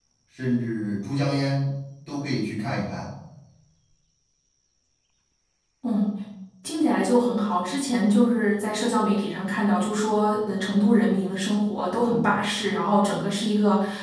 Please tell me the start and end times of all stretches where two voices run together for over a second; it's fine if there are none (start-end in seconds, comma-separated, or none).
none